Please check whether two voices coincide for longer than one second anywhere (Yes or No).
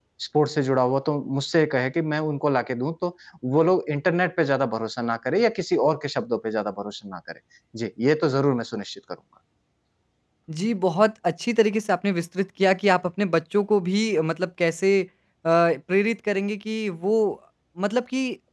No